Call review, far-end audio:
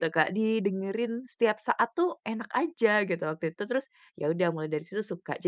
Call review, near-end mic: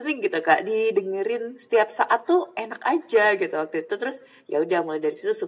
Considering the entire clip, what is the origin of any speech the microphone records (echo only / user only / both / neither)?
echo only